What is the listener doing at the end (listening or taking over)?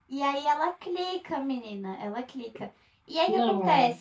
listening